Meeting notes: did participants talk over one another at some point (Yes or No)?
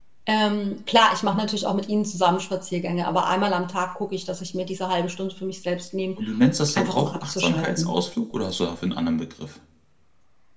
Yes